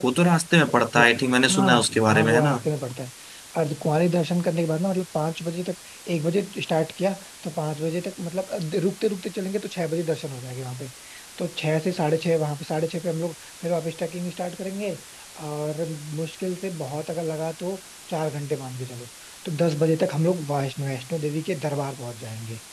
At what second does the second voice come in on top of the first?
0.8 s

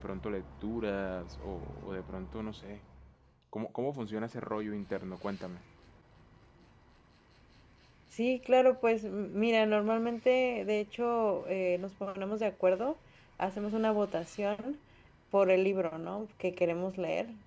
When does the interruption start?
none

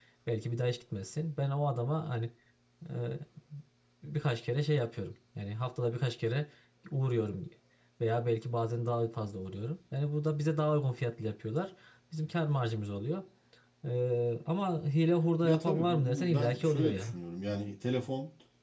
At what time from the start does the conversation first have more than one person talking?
15.4 s

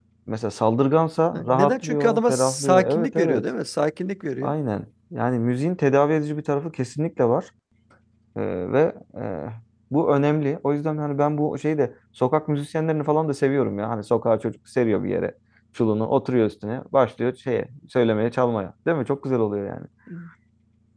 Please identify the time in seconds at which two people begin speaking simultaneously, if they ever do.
1.3 s

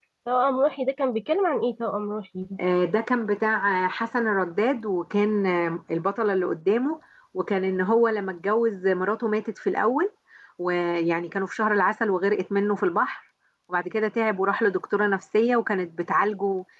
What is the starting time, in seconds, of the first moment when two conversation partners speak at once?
none

